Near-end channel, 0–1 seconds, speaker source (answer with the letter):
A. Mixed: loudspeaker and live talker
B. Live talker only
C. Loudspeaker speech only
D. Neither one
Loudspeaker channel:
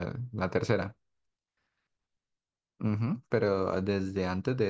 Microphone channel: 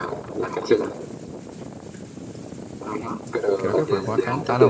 C